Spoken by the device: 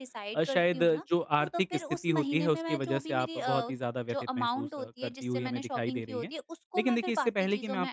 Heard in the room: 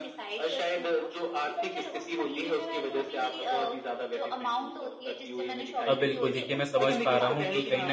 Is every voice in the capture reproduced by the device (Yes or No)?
No